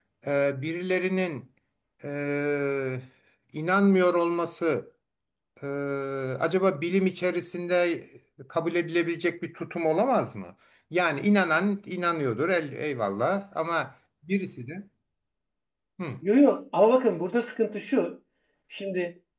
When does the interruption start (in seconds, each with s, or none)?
none